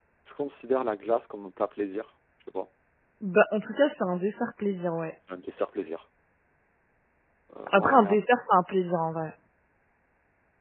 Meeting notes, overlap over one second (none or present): none